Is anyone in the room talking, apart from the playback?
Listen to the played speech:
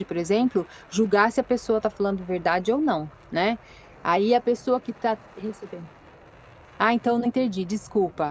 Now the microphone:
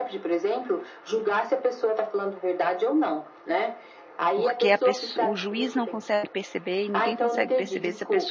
Yes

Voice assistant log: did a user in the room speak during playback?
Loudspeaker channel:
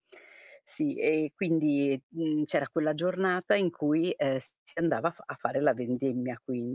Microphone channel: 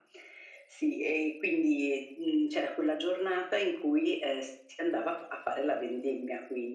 No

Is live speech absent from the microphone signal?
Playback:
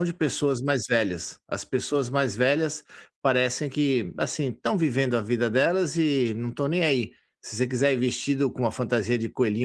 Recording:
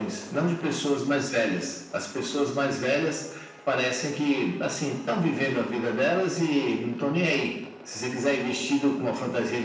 Yes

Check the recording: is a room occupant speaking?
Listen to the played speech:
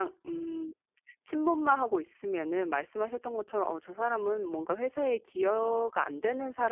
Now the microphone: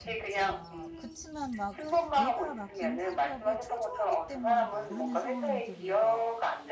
Yes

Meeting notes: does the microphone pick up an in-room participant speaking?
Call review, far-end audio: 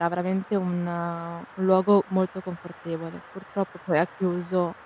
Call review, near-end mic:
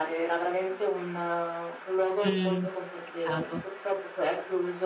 Yes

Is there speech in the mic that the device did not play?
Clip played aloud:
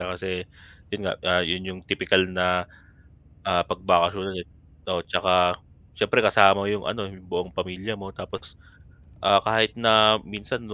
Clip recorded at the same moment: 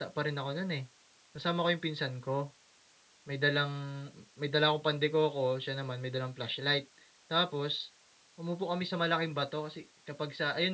Yes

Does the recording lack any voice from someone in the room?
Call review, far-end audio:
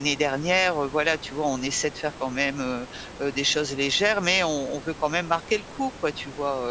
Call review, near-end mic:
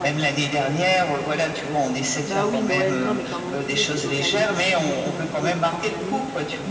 No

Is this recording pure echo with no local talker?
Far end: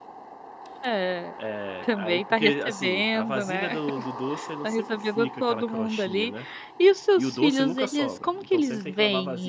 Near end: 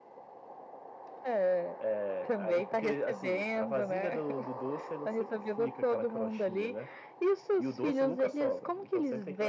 Yes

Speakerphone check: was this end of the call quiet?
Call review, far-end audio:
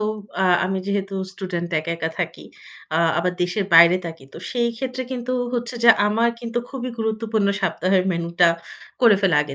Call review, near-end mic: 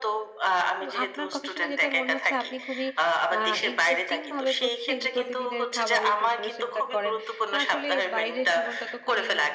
No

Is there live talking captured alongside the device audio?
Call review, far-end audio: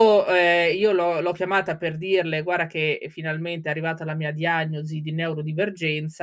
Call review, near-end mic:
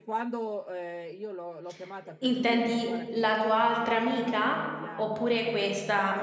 Yes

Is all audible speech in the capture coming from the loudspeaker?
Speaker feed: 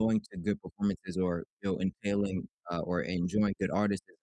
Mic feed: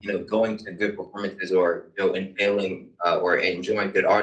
Yes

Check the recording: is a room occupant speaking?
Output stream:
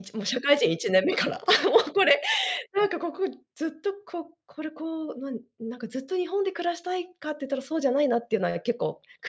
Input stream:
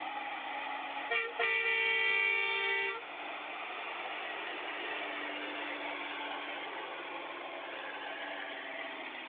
No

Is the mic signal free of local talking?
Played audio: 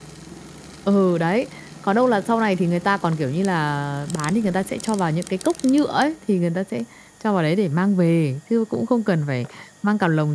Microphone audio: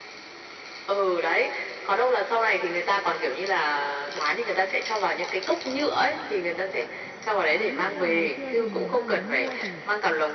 No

